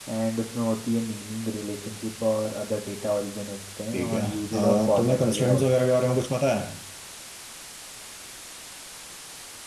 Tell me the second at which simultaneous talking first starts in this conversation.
3.9 s

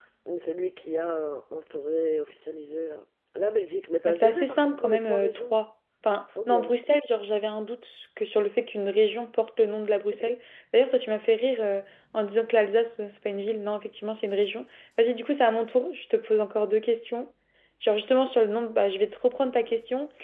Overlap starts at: 4.0 s

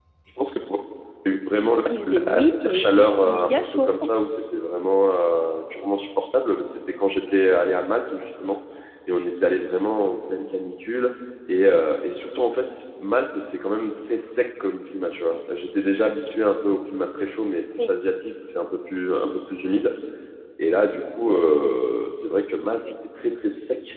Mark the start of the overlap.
2.1 s

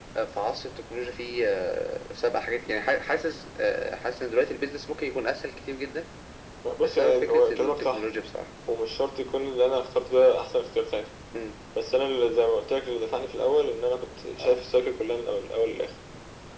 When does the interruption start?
6.8 s

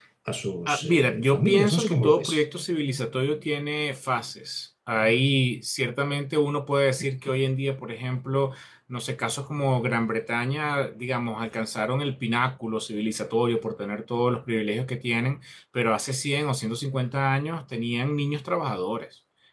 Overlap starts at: 0.7 s

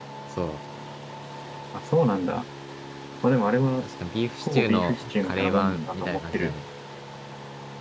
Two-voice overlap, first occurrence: 4.4 s

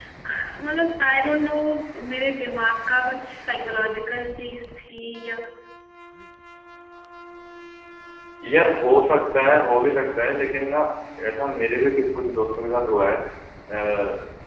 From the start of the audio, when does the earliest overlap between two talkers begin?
none

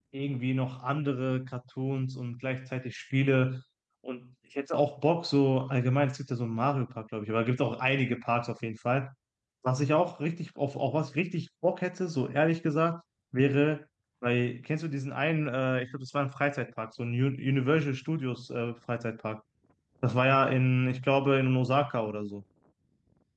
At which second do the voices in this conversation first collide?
none

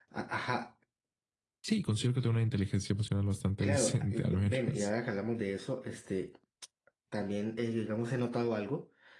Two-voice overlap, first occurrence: 3.6 s

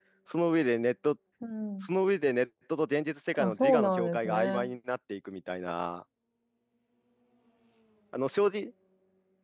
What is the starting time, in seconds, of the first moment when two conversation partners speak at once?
3.3 s

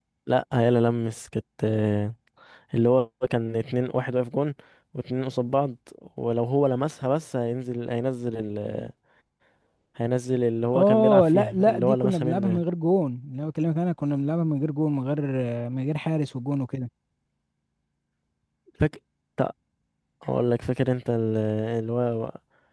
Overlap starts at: 10.7 s

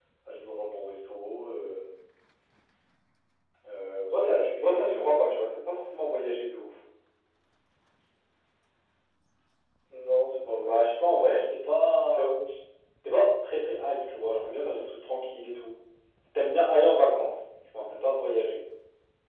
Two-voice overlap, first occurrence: 4.1 s

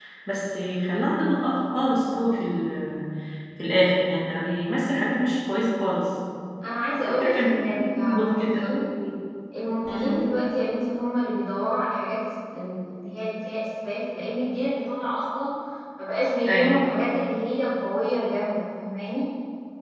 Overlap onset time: 7.0 s

